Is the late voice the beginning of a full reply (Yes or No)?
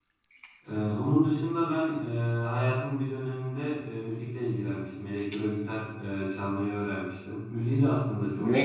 No